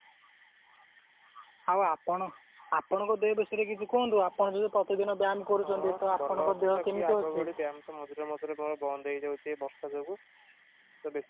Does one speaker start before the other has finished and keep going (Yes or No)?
Yes